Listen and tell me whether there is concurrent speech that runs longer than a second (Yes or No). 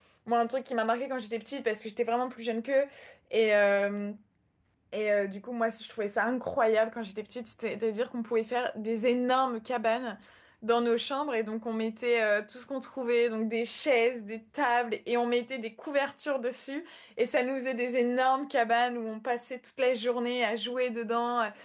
No